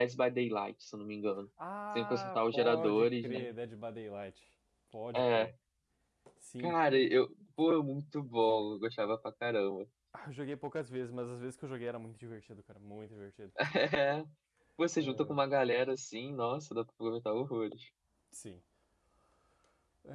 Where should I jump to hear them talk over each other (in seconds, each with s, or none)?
1.9 s